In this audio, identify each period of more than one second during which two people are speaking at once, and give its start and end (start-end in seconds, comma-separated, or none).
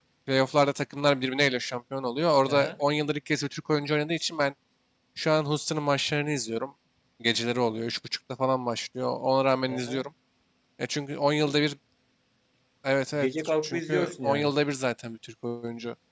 13.2-14.5